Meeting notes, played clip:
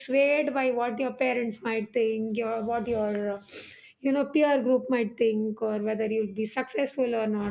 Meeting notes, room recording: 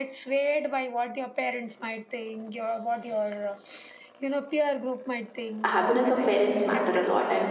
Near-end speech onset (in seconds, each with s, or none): 5.6 s